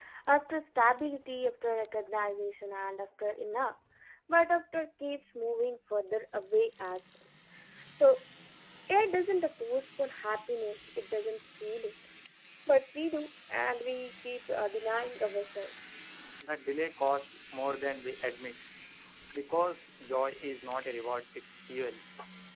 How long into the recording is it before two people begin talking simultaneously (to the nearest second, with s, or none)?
none